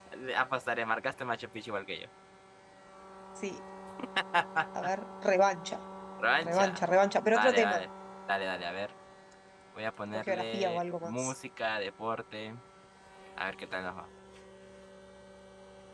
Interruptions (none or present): present